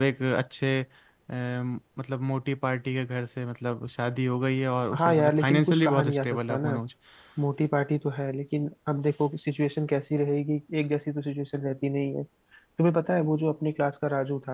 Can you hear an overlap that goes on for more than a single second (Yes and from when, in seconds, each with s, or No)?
Yes, from 4.9 s